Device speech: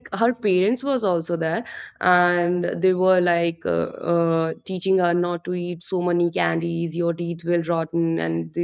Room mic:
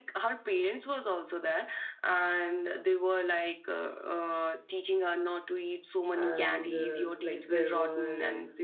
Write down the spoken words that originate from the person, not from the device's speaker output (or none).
and uh, like there were uh,